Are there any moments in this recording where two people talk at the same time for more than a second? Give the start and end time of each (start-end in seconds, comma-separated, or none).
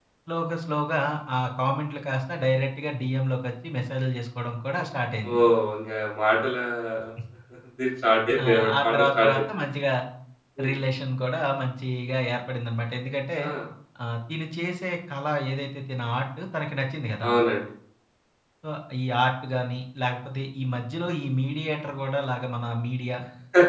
8.4-9.6